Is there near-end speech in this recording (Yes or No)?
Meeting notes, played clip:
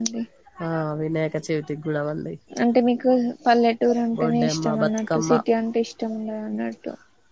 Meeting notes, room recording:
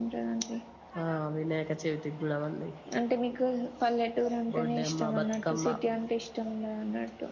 No